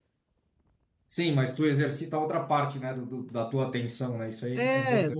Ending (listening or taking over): taking over